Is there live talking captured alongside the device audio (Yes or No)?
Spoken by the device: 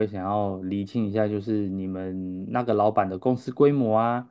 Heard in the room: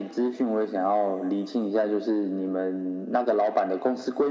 No